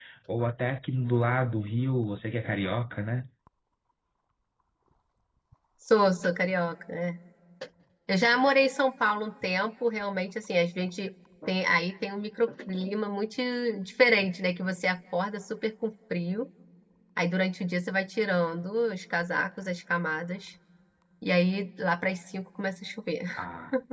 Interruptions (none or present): none